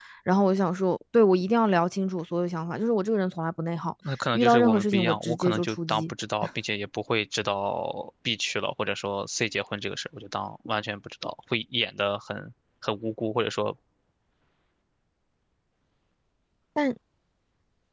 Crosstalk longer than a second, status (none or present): present